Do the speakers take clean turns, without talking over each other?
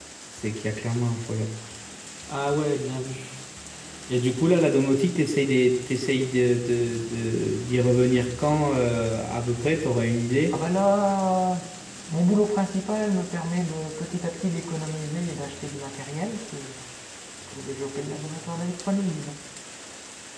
Yes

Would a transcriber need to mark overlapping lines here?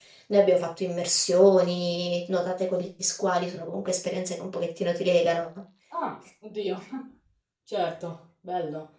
No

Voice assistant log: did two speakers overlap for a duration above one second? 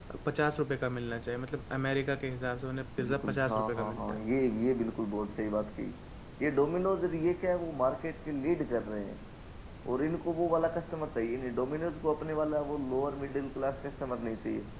Yes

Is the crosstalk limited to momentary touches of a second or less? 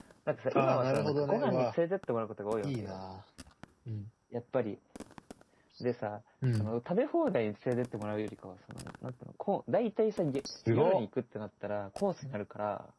No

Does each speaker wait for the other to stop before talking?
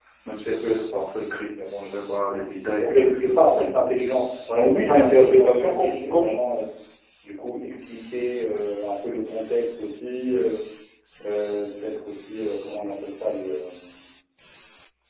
No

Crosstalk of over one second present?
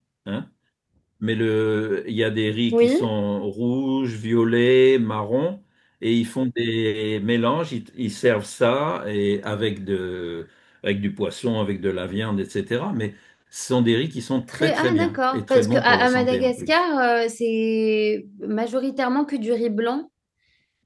Yes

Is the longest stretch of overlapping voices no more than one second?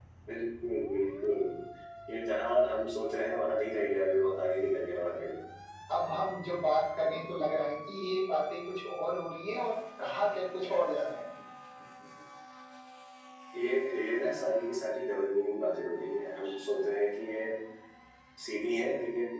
Yes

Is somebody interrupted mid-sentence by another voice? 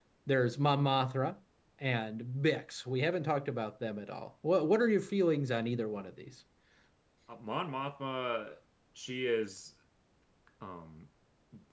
No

